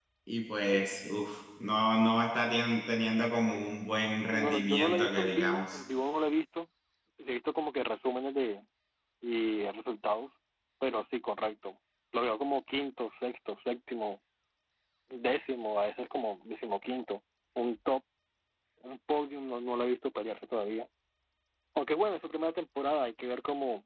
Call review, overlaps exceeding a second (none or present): present